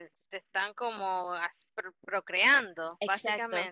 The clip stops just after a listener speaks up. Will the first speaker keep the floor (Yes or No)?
No